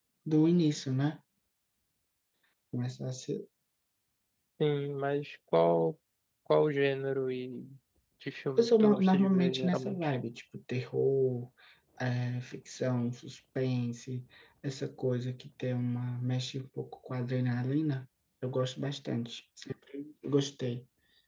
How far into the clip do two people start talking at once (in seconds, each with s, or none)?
8.6 s